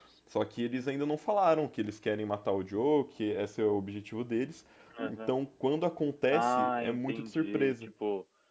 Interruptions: present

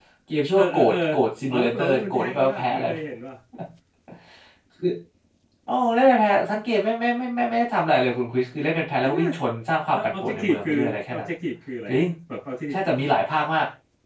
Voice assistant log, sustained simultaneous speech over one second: present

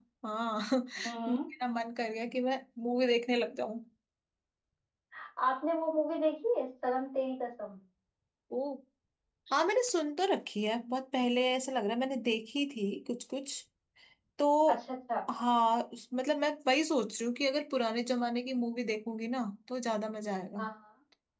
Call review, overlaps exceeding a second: none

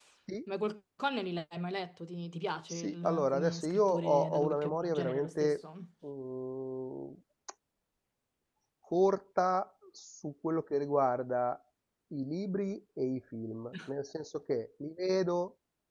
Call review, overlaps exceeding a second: present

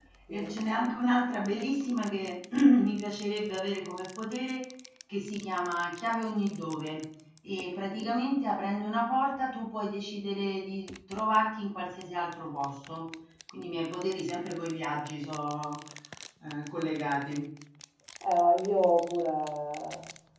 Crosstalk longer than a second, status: none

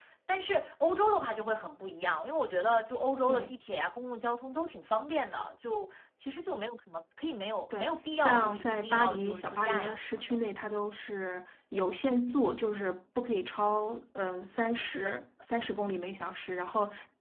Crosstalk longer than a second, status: present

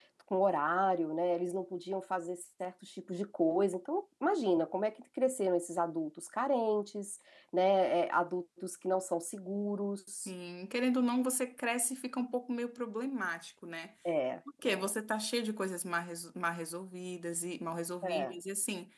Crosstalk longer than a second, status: none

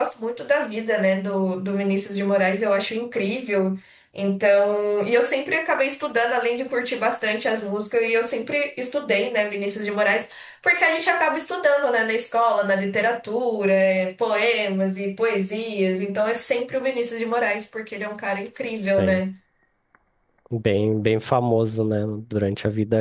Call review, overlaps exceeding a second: none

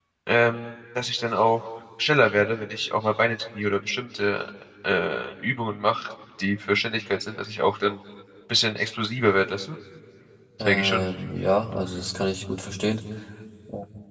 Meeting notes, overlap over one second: none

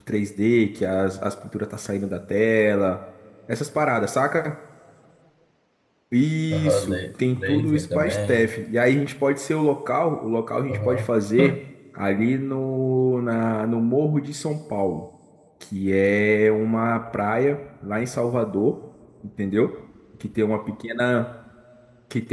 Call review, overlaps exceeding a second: present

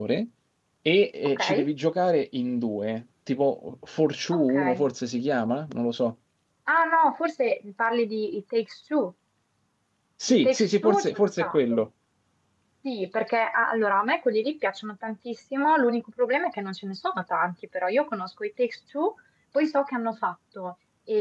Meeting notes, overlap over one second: present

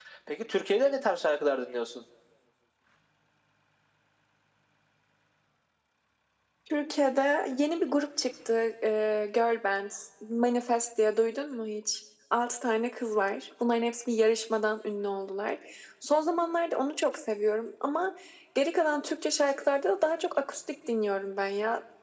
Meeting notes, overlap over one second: none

